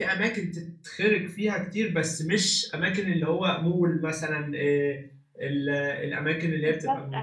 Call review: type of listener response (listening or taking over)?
listening